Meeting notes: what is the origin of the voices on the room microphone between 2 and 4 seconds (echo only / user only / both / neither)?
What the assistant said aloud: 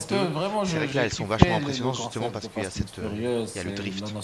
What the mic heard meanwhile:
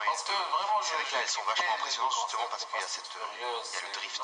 echo only